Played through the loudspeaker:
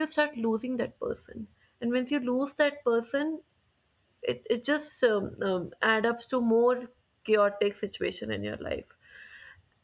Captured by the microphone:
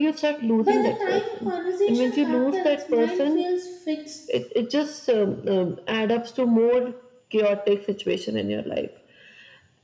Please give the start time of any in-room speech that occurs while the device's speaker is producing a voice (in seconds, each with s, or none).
0.6 s